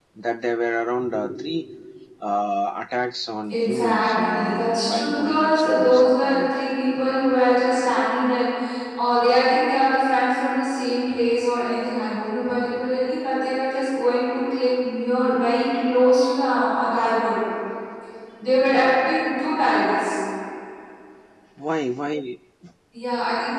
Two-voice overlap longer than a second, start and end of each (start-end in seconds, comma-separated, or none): 3.5-6.5